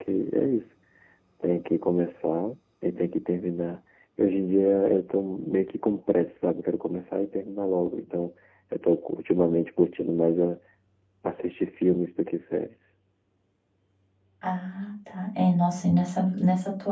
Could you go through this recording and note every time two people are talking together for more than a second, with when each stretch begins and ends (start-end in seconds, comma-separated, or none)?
none